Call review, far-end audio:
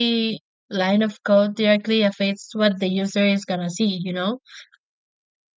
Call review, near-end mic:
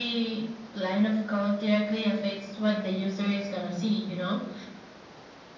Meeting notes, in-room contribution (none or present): none